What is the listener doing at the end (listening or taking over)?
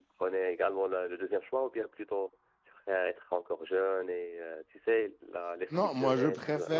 taking over